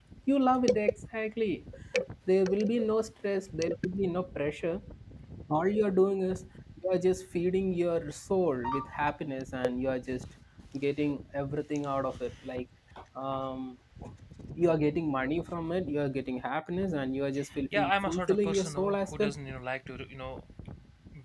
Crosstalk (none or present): present